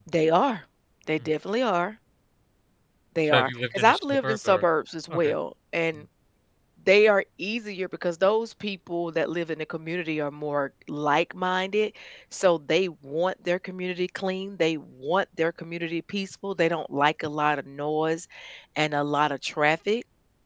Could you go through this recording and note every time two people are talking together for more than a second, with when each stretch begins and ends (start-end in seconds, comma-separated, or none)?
3.2-4.6